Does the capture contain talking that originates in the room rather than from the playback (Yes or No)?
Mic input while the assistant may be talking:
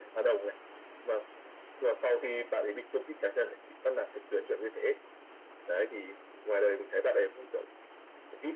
No